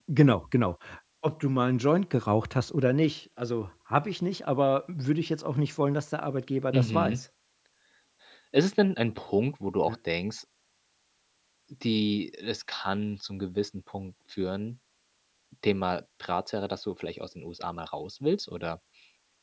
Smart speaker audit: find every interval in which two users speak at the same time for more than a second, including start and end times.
none

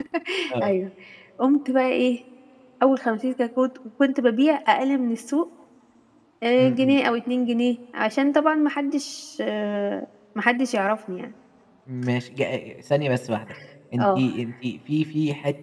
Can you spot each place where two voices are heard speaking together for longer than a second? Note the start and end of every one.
none

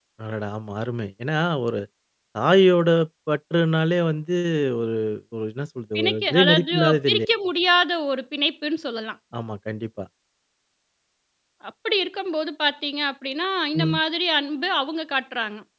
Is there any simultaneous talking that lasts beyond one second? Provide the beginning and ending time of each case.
6.0-7.3

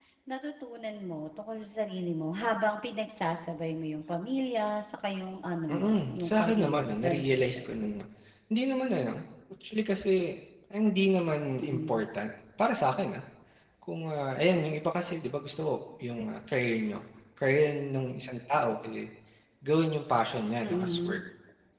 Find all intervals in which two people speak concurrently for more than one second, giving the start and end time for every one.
5.7-7.8

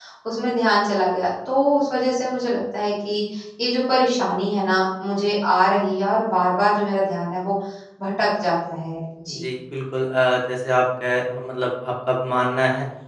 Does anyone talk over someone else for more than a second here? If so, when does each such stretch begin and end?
none

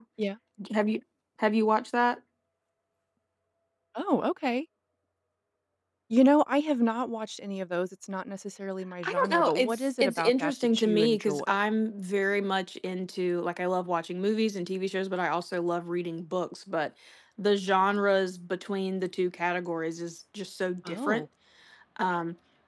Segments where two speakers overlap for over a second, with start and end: 9.0-11.5

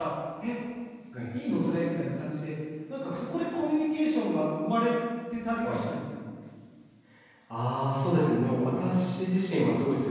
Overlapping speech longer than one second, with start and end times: none

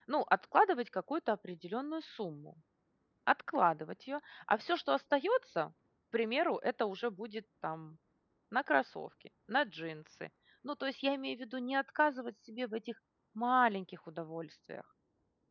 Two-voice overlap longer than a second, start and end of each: none

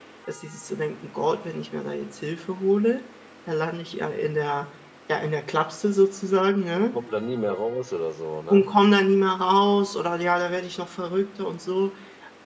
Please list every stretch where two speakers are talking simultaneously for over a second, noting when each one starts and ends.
none

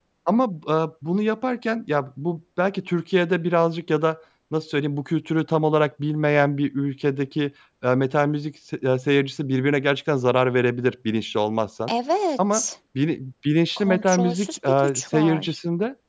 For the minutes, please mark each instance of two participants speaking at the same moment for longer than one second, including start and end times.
13.8-15.5

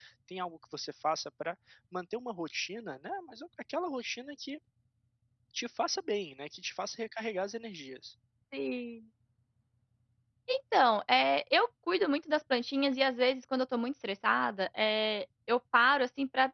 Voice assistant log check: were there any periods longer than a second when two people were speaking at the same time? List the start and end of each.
none

